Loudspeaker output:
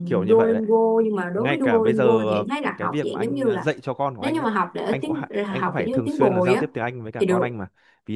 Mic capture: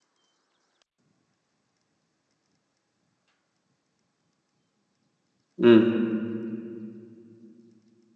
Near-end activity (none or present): present